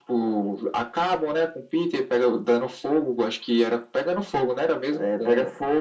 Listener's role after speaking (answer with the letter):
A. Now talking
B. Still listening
A